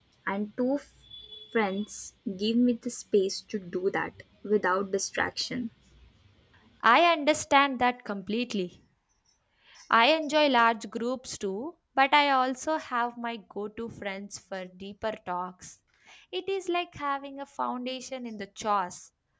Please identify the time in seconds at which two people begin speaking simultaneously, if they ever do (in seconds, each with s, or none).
none